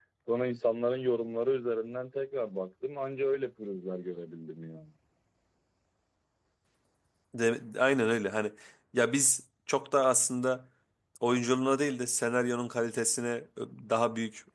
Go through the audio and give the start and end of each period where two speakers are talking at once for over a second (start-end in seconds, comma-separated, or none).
none